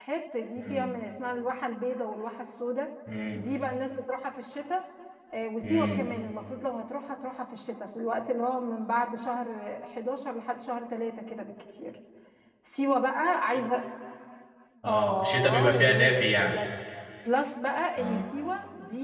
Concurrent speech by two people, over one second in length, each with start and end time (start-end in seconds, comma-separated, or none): 14.9-16.6